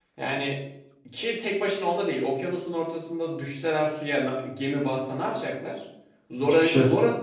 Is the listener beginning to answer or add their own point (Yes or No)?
No